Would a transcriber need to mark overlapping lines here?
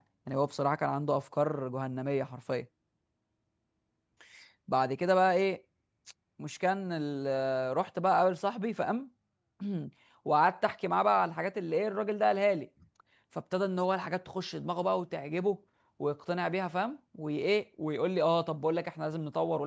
No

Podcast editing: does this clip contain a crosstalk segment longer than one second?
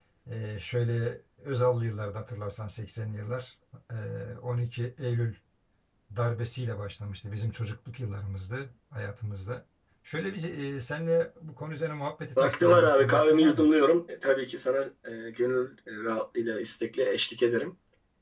Yes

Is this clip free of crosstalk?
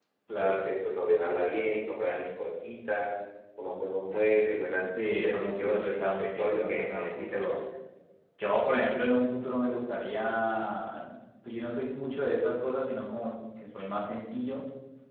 No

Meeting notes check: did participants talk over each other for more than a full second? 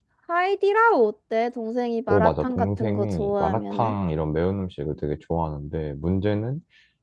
Yes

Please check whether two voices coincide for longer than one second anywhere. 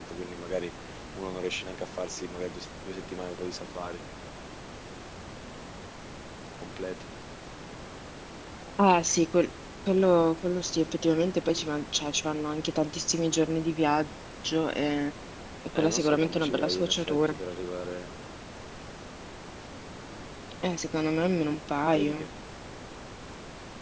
Yes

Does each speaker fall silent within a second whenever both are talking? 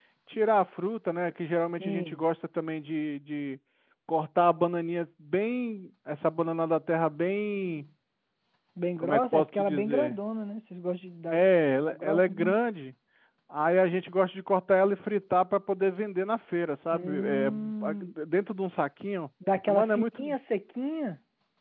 No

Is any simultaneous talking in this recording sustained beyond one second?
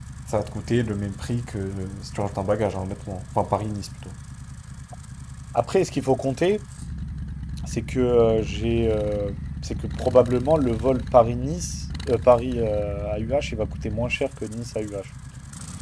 No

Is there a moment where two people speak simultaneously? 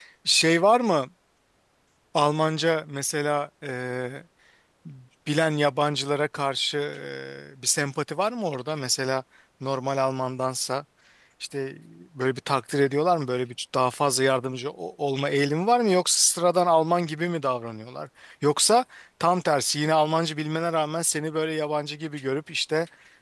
No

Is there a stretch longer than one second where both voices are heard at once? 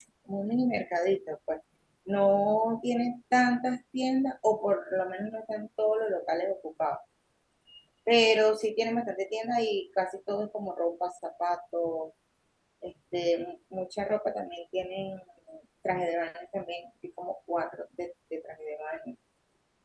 No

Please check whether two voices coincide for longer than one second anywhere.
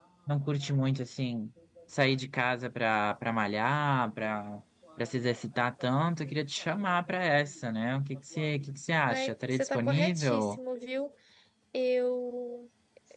Yes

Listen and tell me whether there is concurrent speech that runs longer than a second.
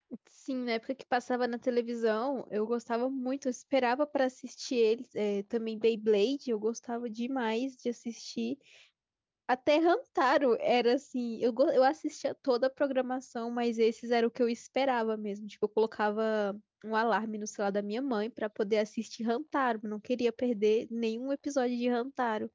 No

